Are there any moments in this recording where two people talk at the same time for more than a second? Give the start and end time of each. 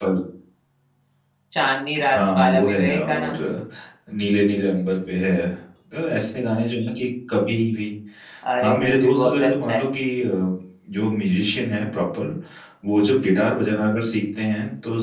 2.1-3.3, 8.6-9.8

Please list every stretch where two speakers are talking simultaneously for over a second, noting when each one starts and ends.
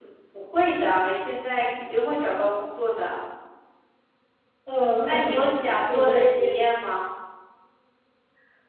5.0-6.5

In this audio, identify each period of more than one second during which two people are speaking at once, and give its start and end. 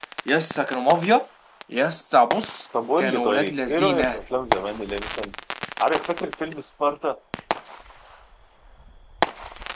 3.0-4.2

